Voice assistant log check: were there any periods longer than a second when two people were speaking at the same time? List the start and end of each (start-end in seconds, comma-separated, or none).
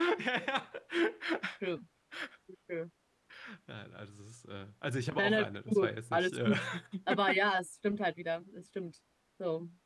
5.2-6.5